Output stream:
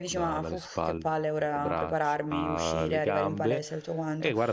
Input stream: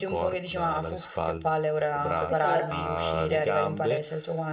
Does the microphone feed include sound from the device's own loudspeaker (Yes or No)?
Yes